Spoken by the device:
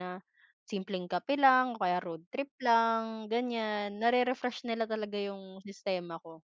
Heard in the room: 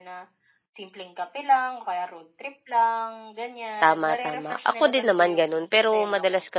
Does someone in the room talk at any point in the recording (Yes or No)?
Yes